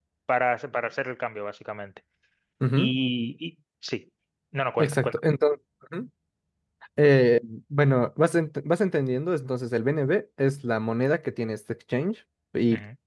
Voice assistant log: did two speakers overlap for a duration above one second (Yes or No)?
No